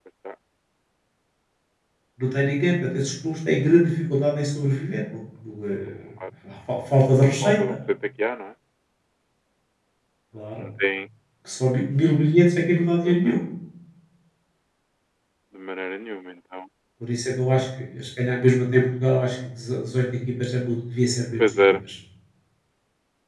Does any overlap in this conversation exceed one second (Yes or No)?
No